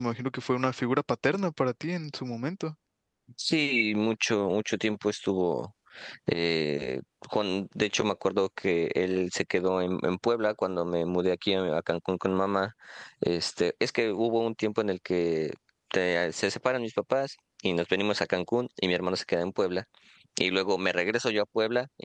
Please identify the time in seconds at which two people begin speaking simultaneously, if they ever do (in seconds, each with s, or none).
none